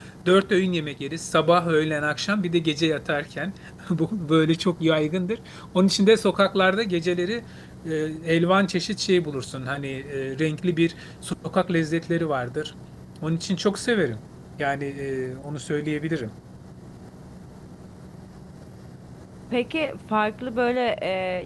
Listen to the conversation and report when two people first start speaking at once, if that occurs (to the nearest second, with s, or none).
none